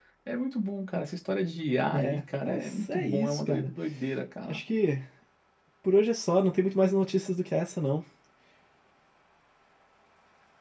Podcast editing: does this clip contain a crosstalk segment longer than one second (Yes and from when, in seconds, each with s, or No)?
Yes, from 1.9 s